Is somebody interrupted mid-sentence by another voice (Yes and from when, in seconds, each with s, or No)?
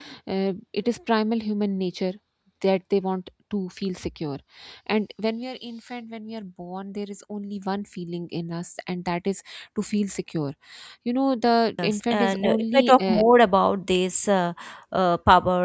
Yes, from 11.8 s